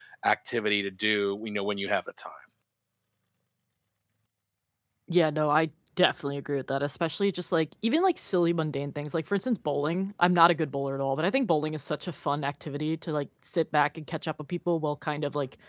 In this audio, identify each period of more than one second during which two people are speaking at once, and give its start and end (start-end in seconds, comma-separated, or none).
none